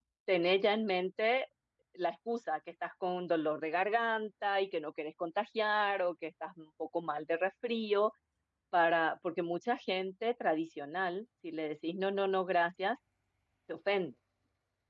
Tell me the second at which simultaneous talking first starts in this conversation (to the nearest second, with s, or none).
none